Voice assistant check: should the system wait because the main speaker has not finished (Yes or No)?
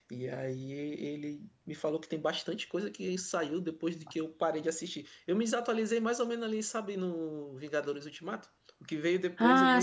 Yes